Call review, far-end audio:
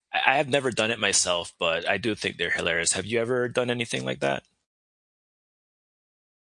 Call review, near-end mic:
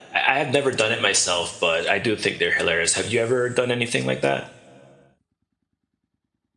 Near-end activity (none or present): none